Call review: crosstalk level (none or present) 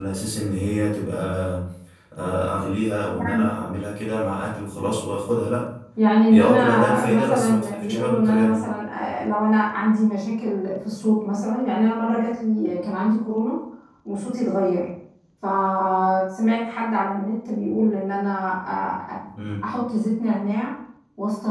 present